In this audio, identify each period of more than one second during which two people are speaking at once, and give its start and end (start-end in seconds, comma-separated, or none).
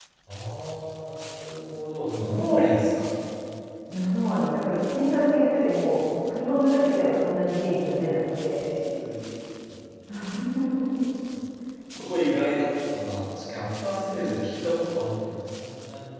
none